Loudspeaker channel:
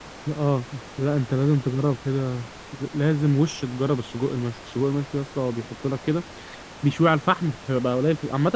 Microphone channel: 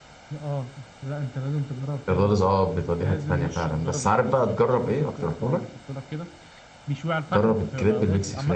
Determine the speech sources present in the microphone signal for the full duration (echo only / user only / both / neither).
both